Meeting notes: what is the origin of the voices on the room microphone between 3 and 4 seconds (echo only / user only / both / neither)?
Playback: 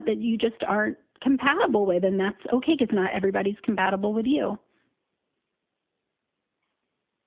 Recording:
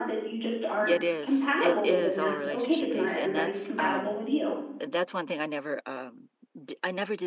both